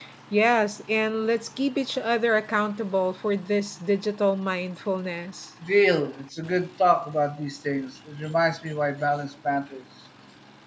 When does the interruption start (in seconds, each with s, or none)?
none